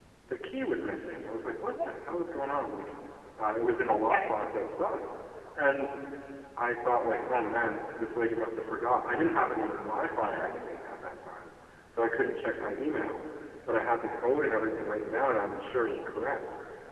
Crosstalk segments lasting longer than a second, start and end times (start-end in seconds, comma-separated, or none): none